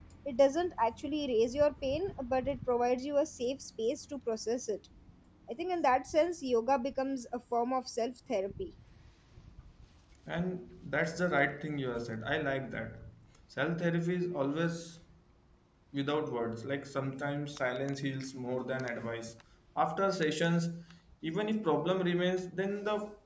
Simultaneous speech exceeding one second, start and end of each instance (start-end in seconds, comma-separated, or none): none